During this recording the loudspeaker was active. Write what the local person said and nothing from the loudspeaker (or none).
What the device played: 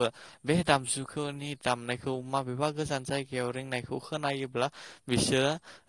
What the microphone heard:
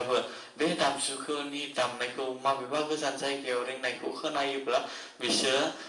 none